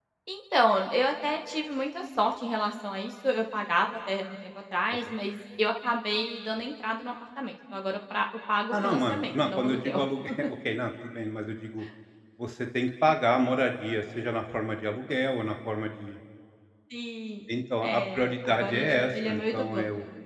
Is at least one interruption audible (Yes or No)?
Yes